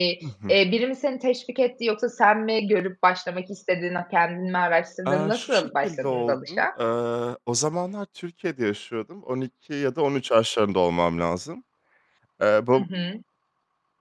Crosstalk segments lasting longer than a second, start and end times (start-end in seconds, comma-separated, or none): 5.1-6.7